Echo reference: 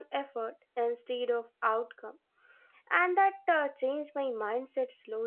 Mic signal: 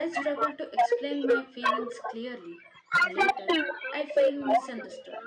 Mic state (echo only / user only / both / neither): both